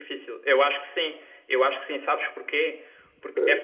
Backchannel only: Yes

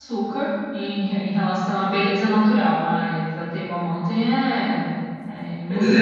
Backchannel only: No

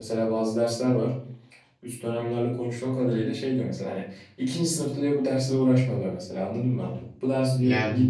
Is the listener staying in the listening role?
Yes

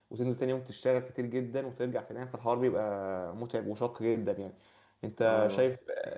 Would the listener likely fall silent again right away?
Yes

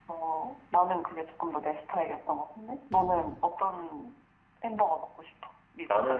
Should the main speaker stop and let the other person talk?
Yes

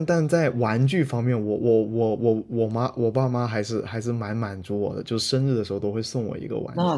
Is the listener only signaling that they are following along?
No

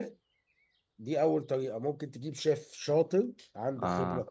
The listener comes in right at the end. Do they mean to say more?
No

